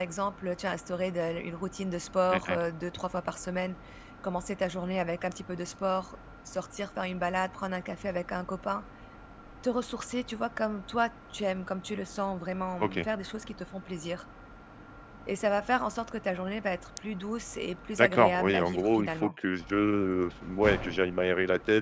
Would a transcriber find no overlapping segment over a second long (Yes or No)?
No